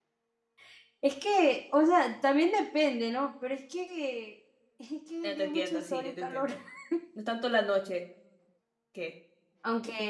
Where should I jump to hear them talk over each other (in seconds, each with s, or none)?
5.2 s